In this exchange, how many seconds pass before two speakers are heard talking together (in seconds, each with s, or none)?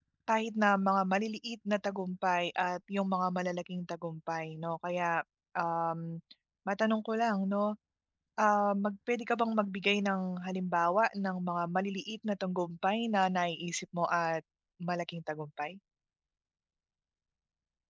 none